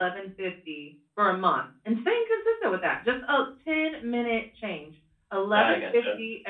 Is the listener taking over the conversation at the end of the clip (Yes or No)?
No